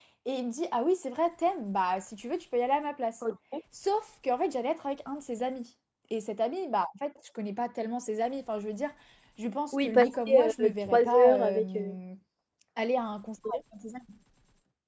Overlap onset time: 9.7 s

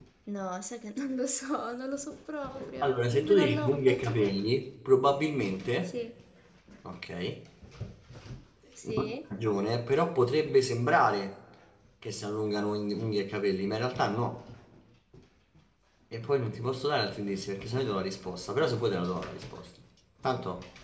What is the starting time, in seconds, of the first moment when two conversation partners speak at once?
2.8 s

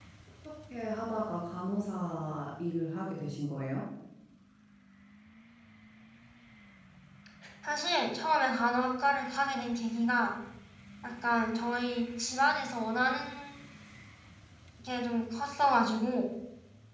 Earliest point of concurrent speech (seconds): none

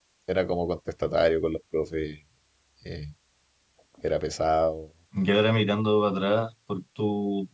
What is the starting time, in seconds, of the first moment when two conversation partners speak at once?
none

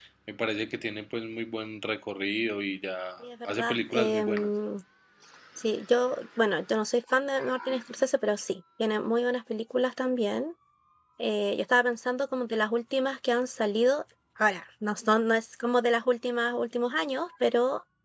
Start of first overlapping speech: 3.2 s

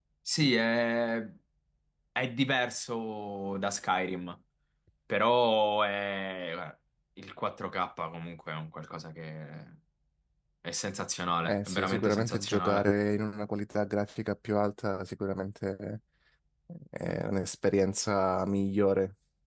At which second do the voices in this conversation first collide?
11.4 s

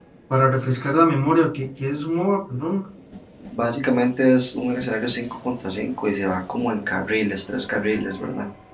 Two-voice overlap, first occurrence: none

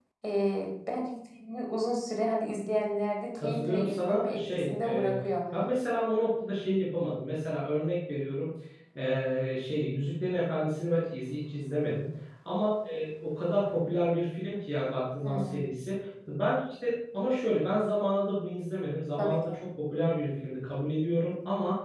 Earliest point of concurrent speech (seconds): 3.4 s

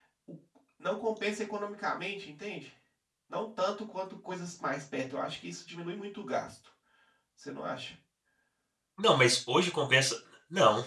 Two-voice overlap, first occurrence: none

